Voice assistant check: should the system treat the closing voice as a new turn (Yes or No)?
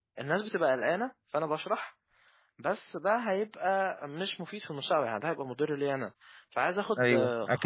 No